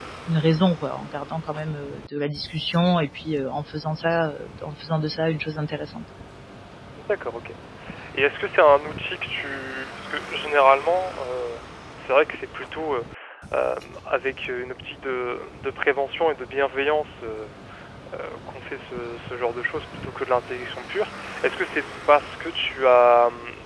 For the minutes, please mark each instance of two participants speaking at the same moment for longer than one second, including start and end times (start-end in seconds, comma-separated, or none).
none